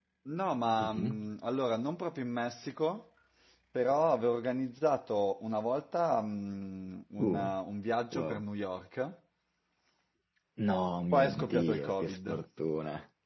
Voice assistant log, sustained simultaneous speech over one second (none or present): present